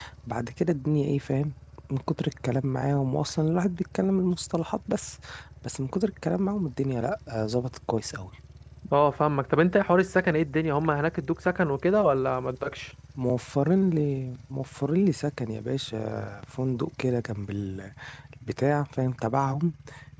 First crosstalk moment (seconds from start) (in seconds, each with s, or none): none